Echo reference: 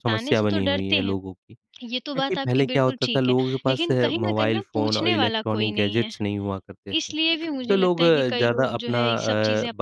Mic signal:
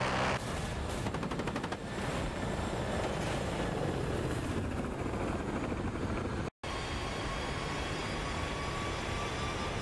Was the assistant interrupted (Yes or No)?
No